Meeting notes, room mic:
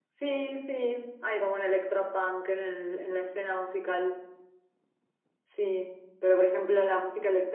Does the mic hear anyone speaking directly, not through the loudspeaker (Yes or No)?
No